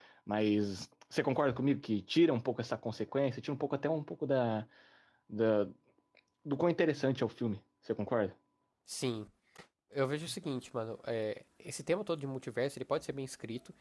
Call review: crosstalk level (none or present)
none